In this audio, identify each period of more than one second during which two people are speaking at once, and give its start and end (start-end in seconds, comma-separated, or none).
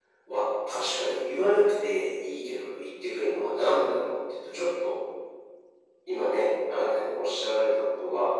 none